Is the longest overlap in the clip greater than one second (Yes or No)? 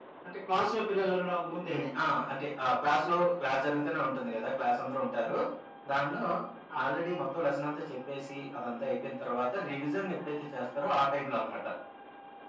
No